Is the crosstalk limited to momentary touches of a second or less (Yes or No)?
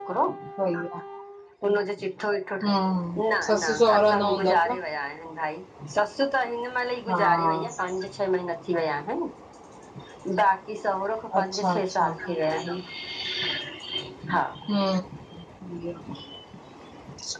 No